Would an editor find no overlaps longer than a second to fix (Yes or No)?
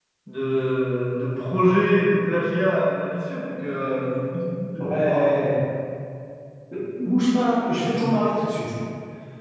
Yes